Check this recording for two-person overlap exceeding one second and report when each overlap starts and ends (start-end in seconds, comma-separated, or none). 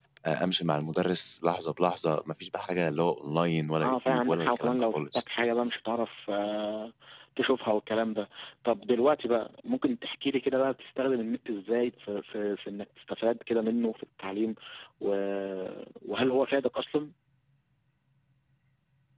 3.8-5.2